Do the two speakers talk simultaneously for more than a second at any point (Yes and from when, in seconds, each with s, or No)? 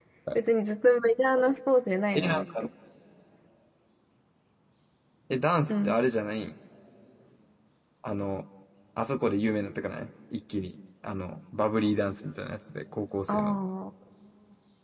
No